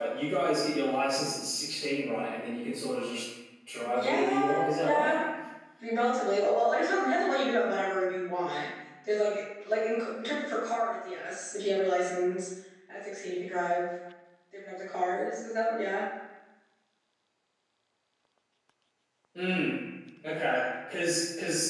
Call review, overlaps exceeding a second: present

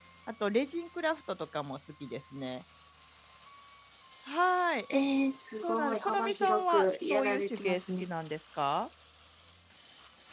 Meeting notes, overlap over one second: present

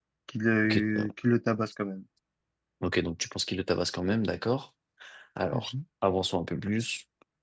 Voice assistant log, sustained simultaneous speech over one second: none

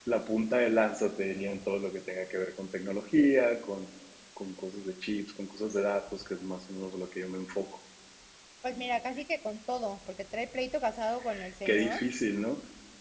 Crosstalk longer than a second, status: none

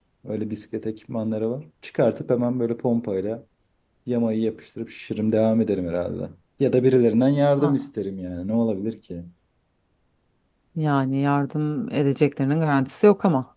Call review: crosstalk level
none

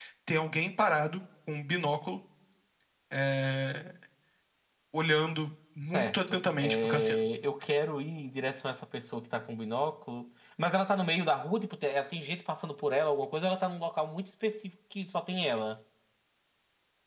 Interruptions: present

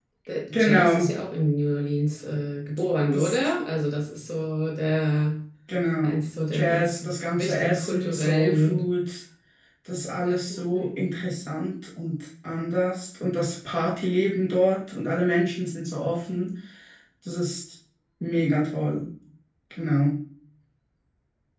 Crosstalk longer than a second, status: present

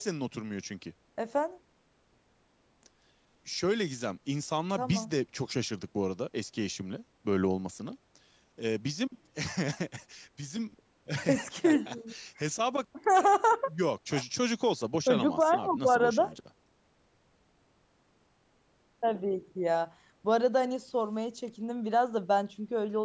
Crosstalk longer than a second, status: present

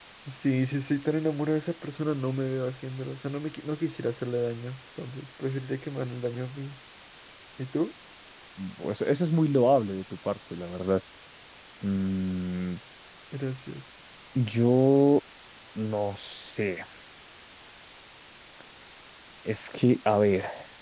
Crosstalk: none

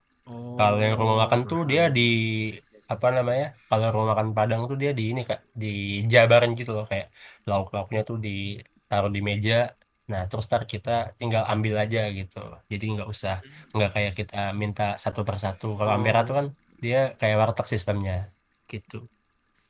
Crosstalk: present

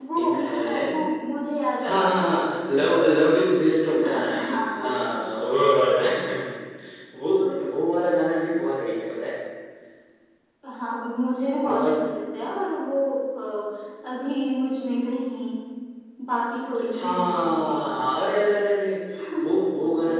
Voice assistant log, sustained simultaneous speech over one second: present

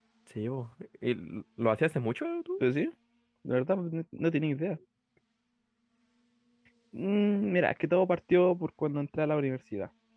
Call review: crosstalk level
none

